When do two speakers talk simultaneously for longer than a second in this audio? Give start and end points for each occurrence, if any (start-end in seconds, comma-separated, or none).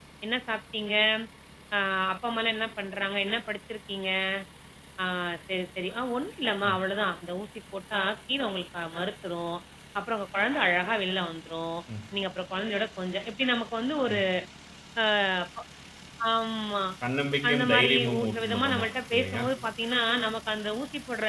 17.5-19.4